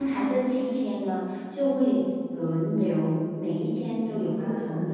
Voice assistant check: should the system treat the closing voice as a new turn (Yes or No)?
No